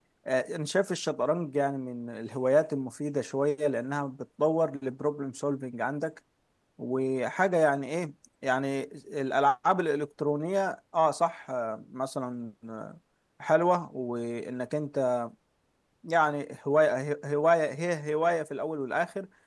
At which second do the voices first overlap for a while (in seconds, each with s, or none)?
none